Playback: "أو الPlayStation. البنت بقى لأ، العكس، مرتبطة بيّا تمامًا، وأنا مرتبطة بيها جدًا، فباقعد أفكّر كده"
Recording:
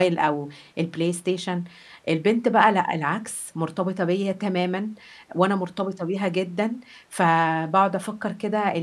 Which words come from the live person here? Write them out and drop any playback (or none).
none